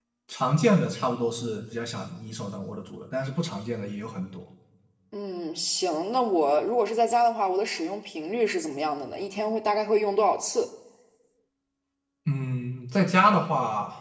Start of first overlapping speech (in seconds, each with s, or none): none